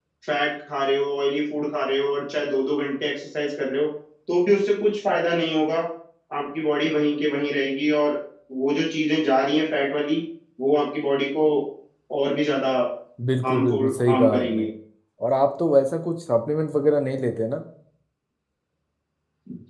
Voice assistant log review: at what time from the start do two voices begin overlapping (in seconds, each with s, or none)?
13.4 s